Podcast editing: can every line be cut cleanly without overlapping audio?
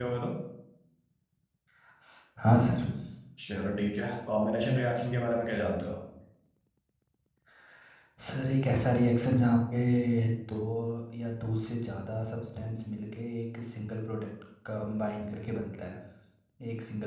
Yes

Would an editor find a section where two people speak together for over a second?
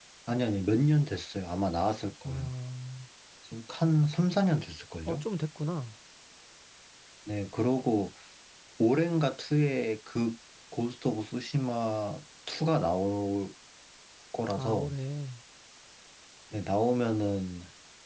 No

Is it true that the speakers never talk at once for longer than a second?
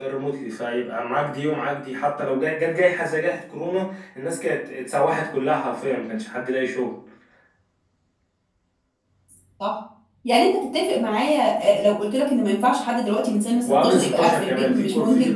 No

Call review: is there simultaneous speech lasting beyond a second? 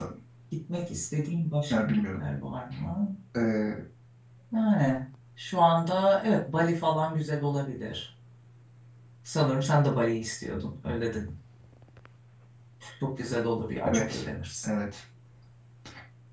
No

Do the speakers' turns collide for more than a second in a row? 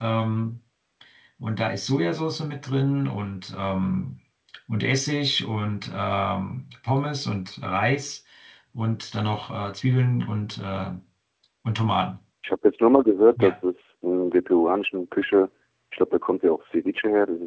No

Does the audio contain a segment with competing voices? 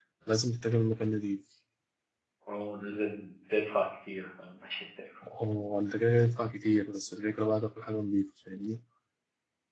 No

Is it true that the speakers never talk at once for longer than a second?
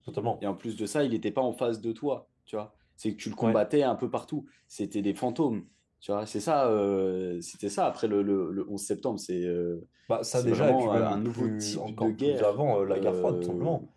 No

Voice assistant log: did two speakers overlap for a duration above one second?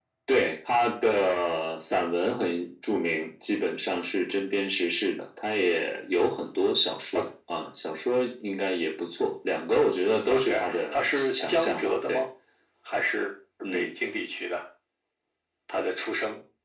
Yes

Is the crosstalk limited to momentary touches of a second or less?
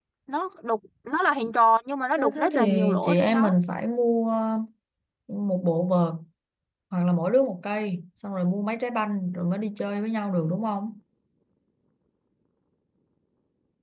No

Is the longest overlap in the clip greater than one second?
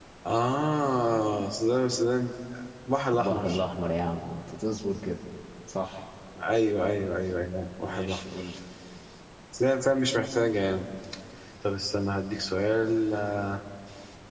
No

